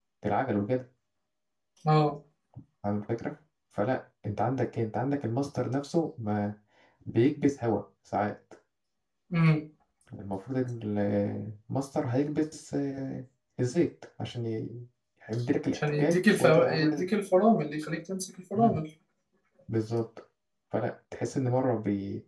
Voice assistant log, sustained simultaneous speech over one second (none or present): present